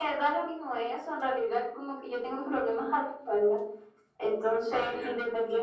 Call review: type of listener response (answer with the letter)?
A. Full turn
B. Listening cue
B